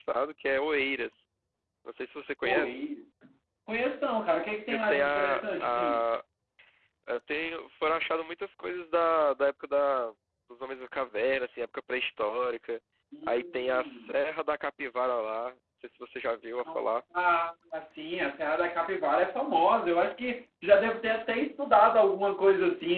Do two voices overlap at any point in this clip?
Yes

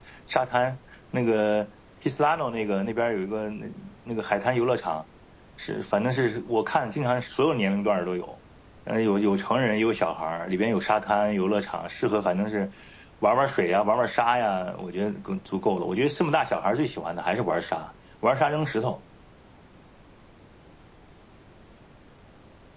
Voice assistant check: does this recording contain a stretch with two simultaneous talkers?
No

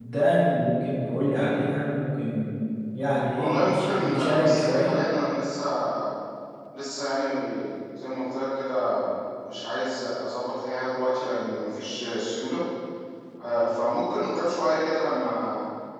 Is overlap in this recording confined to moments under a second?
No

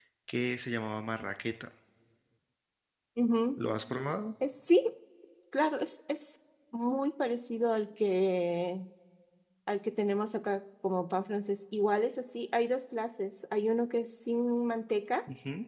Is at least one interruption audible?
No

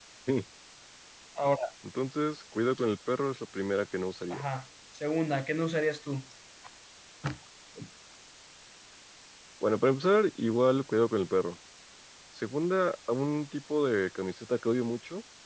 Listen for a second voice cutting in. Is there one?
No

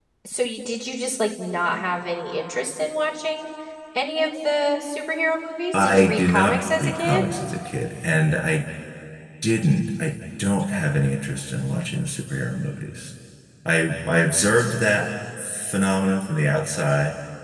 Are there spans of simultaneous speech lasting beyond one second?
Yes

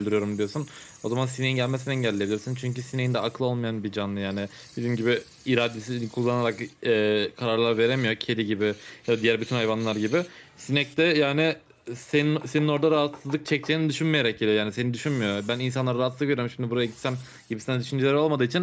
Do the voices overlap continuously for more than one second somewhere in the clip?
No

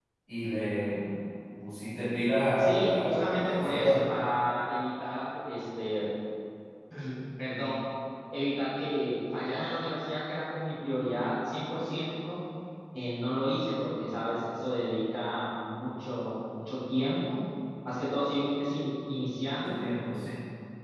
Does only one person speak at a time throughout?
No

